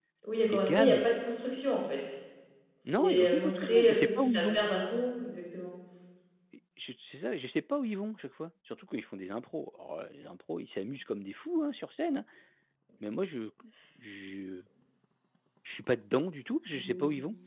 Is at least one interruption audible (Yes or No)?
Yes